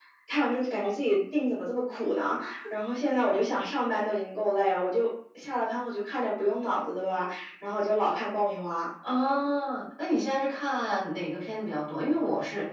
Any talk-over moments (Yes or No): No